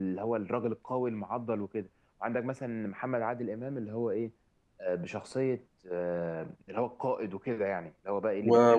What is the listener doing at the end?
taking over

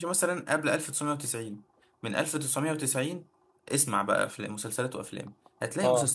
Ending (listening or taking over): listening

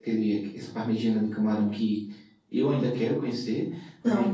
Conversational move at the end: listening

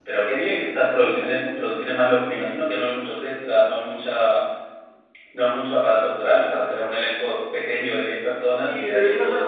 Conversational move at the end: taking over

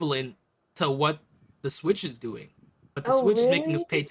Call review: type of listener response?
listening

